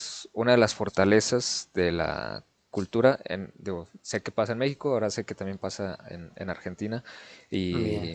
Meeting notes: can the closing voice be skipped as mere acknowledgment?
Yes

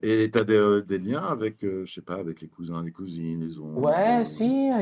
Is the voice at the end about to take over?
Yes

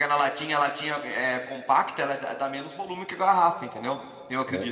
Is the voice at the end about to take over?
Yes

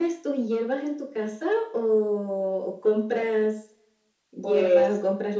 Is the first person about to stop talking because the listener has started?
No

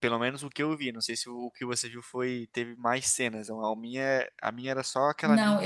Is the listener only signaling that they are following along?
No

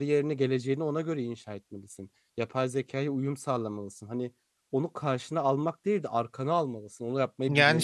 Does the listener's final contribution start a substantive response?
Yes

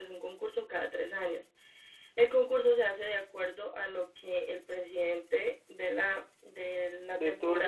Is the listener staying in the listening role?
Yes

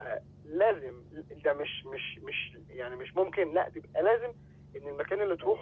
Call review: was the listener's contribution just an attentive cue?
Yes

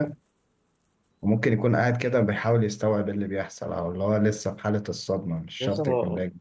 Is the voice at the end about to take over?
Yes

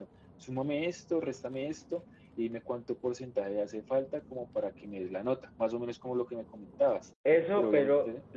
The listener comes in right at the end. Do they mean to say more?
Yes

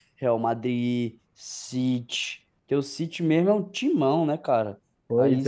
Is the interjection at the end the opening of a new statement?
Yes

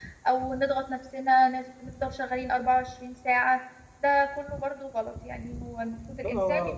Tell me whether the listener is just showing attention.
Yes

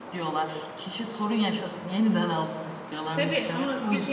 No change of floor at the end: No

